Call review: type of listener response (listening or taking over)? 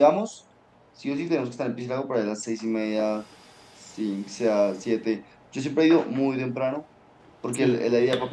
listening